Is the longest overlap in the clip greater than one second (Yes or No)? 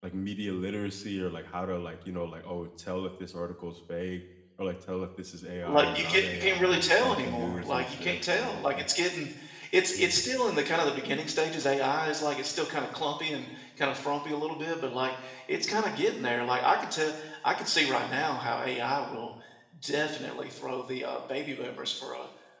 Yes